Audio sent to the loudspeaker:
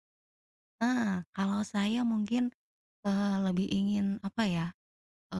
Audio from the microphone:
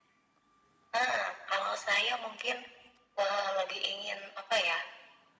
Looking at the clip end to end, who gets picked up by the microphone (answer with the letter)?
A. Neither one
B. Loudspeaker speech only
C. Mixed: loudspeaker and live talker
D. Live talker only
B